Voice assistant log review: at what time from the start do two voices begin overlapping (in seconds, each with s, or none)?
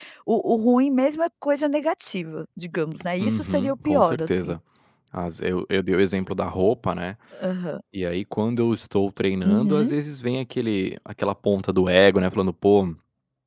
3.2 s